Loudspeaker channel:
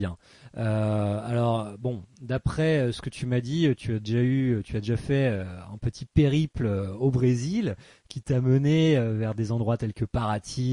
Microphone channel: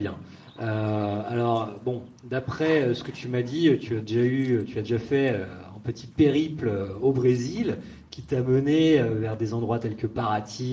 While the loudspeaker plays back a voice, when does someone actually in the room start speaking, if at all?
none

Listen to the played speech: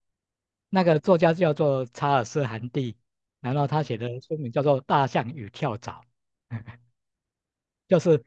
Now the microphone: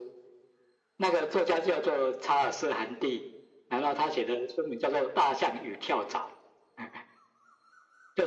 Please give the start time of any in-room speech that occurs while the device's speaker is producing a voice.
none

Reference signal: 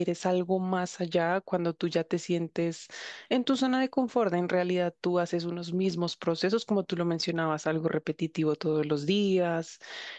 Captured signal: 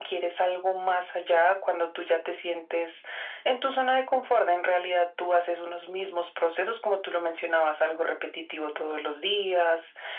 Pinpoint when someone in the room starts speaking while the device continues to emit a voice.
none

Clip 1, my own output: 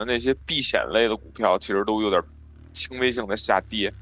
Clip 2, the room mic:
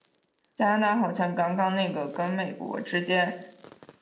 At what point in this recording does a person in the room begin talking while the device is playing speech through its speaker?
0.5 s

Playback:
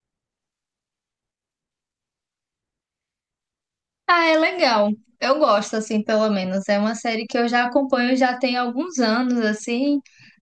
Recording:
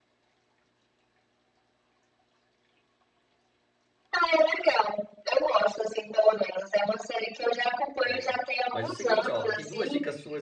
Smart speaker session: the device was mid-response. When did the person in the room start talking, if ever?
8.1 s

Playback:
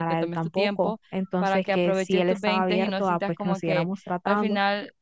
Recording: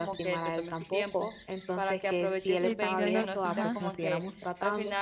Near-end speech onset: 2.5 s

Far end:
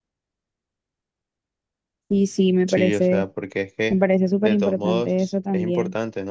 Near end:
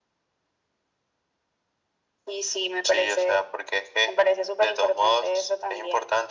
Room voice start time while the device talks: none

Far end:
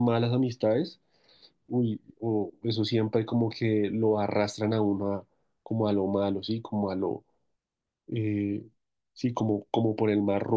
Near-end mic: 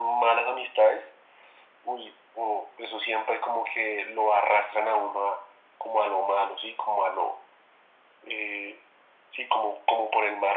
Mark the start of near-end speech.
none

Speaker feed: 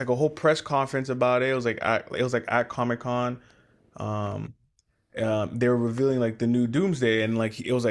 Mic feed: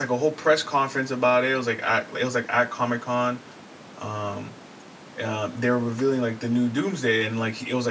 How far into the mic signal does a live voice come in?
none

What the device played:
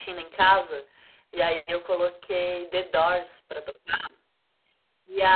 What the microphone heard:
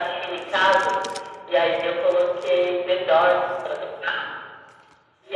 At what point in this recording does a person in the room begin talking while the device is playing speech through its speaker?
none

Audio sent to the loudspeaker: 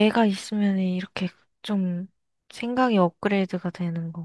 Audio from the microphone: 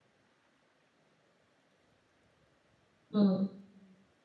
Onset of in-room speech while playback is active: 3.1 s

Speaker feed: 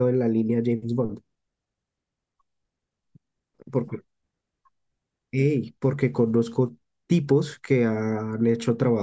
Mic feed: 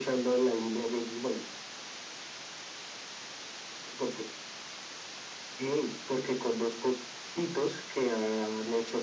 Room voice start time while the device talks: none

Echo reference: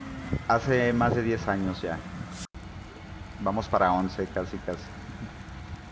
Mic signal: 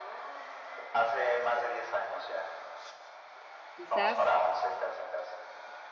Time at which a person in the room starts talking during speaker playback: 3.7 s

